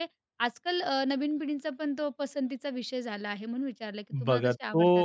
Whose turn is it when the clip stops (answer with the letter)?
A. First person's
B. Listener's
B